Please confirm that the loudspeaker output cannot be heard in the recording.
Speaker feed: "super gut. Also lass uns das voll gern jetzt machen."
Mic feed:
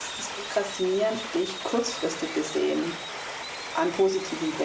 Yes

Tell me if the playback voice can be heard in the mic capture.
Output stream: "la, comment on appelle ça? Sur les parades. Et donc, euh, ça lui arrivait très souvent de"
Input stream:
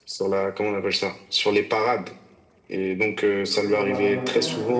Yes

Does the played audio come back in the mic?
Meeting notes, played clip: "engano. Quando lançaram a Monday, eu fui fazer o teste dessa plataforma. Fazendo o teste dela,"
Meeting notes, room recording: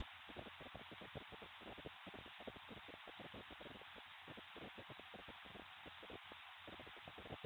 No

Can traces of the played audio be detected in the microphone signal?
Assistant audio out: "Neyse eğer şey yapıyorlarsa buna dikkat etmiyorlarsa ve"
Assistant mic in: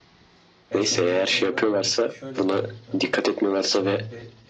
Yes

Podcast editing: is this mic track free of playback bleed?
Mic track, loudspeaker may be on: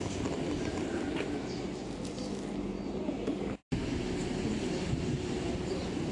Yes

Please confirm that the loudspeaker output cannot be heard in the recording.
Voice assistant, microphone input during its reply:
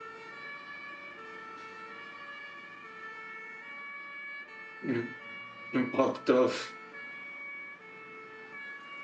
Yes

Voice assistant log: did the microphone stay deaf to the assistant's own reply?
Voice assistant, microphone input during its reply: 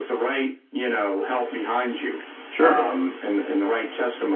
No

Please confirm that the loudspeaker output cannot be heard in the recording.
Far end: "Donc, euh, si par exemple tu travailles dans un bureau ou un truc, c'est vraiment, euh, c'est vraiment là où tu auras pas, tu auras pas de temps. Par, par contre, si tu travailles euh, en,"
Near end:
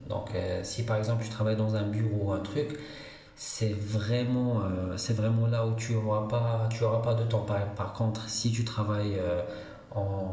No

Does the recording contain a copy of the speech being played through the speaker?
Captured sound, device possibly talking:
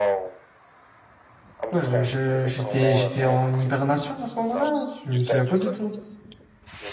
Yes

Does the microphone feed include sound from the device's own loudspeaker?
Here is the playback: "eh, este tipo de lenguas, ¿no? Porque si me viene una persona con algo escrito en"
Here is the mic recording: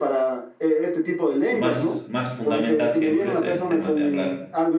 Yes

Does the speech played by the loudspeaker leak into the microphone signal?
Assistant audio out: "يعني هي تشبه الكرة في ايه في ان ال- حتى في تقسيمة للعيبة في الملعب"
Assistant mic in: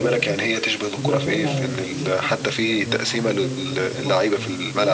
Yes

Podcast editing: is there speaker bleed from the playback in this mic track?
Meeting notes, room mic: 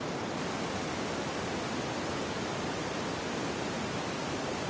No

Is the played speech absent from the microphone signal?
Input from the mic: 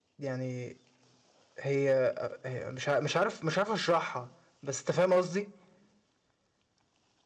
Yes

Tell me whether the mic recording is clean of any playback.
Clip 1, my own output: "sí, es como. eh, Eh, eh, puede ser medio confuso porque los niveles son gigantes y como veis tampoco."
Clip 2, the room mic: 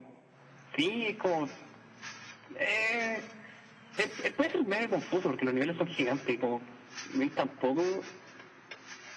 No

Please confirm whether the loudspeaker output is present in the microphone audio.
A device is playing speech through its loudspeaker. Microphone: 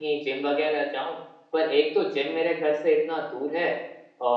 No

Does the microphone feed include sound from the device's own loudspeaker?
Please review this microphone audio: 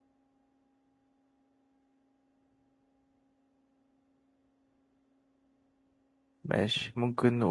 No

